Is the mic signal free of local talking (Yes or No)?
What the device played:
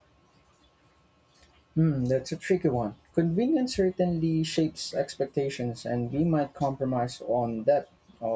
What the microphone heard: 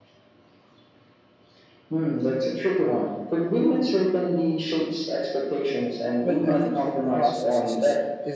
No